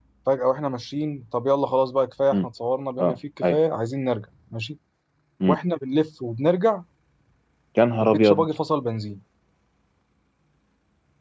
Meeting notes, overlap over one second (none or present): none